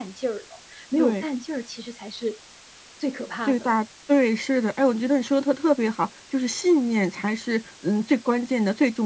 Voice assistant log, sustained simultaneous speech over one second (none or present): none